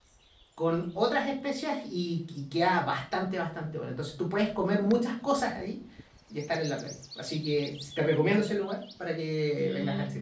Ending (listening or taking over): taking over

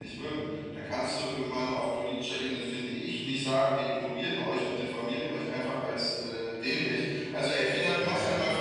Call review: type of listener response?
listening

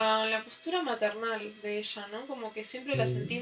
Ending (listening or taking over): listening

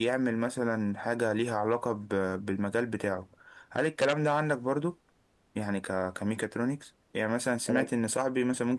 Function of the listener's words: listening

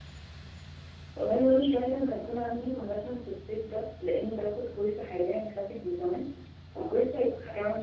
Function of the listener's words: listening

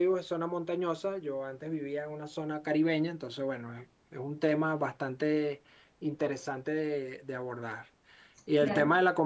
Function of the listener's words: listening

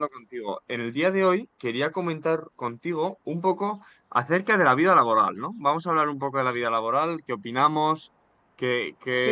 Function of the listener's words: taking over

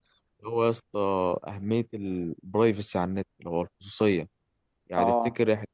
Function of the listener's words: listening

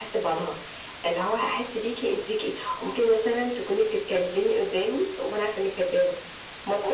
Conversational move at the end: listening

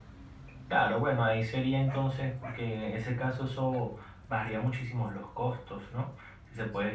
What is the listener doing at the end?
listening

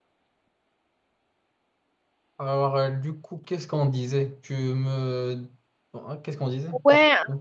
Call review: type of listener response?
taking over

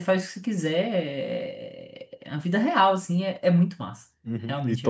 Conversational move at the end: taking over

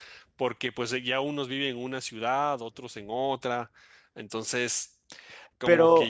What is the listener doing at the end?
listening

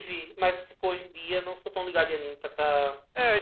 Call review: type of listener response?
taking over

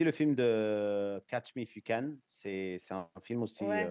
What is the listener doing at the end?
taking over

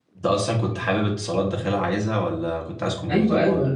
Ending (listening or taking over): taking over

